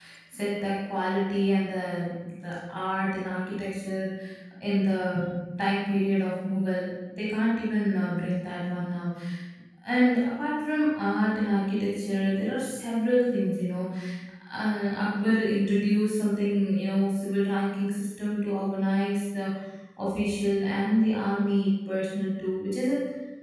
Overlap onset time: none

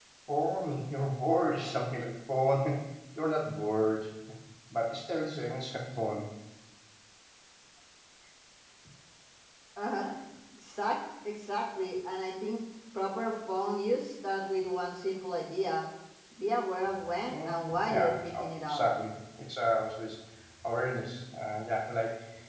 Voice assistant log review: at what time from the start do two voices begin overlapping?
17.3 s

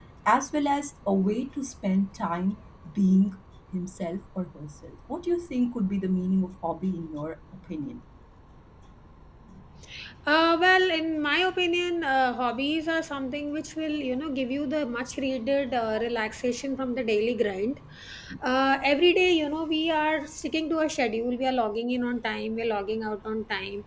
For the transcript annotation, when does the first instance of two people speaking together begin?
none

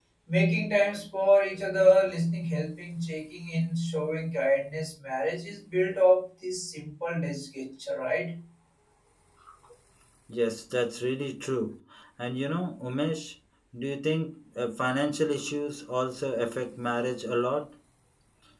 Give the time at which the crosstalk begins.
none

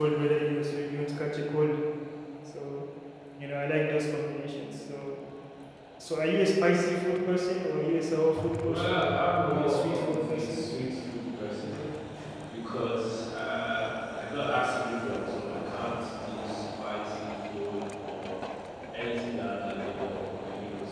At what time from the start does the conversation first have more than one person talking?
8.6 s

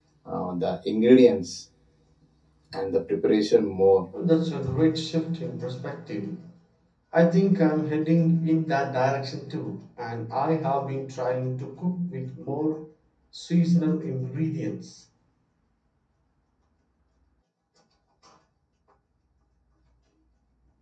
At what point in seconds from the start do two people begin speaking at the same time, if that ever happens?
none

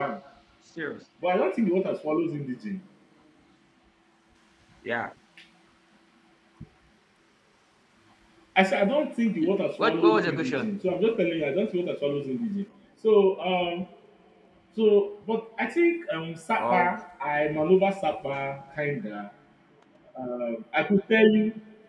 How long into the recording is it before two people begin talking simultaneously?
9.4 s

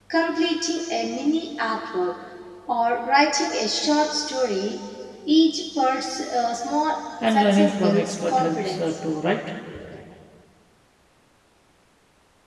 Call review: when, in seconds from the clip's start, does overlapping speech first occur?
7.2 s

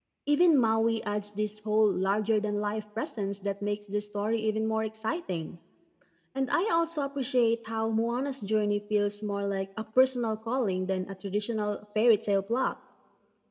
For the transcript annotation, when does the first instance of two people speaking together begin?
none

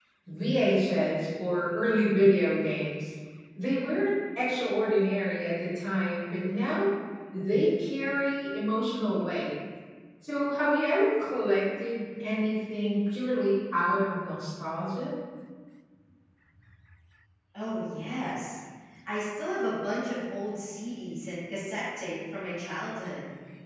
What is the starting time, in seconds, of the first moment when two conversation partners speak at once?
none

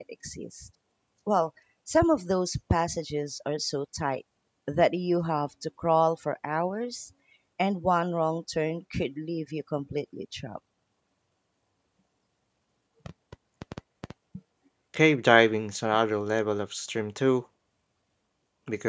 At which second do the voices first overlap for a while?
none

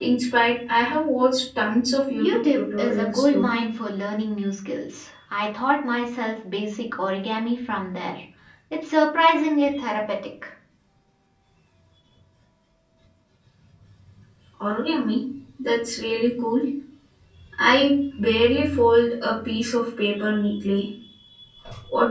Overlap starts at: 2.1 s

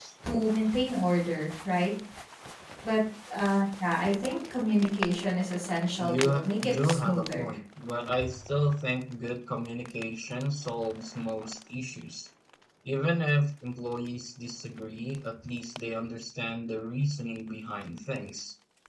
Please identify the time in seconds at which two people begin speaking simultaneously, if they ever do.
6.0 s

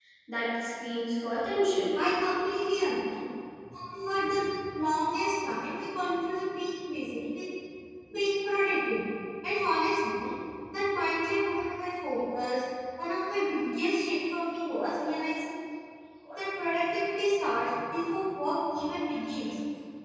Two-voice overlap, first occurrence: none

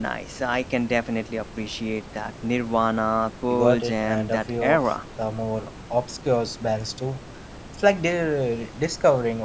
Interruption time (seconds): 3.5 s

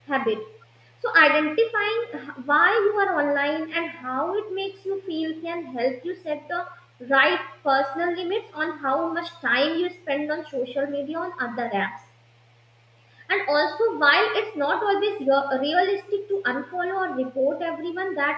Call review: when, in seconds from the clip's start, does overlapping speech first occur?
none

